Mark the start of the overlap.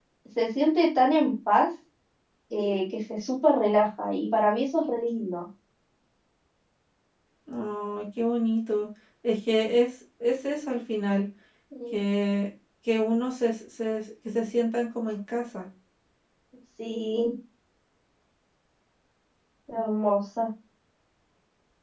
none

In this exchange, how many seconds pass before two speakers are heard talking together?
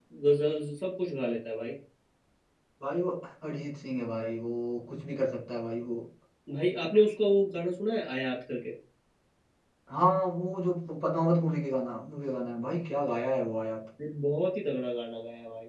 none

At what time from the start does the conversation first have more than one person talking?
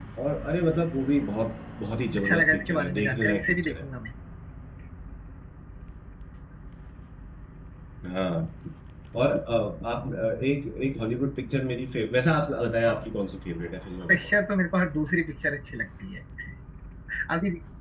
2 s

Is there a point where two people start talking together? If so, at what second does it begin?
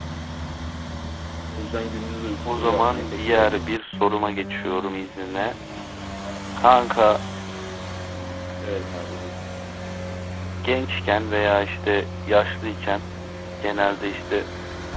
2 s

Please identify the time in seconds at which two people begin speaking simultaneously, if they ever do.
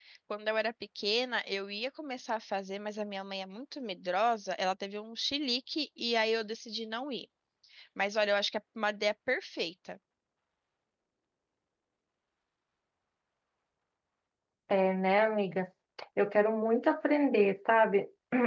none

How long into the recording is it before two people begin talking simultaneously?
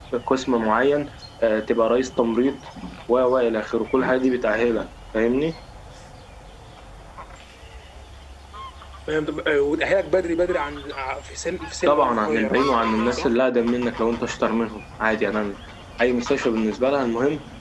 12 s

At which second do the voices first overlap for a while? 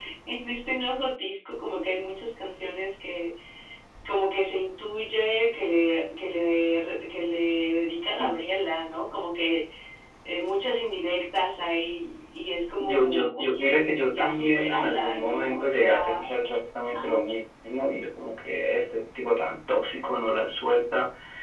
13 s

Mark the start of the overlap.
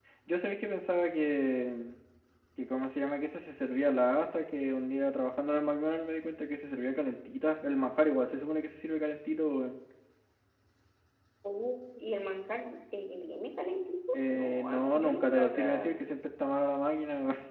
14 s

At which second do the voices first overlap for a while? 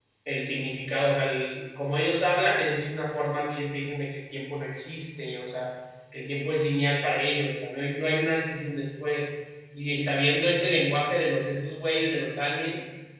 none

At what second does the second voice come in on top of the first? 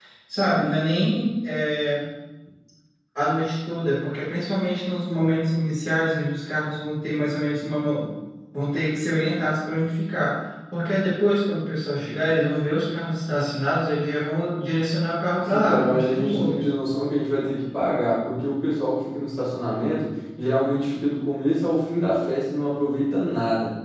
15 s

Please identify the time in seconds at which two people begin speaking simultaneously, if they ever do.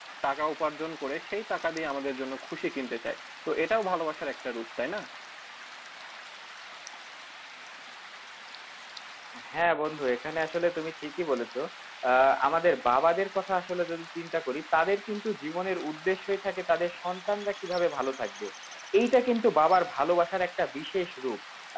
none

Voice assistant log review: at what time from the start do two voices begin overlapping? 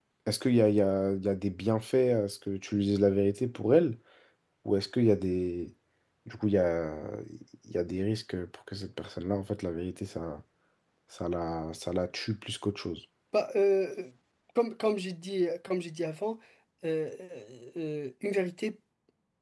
none

